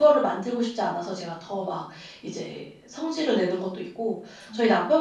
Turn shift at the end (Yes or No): No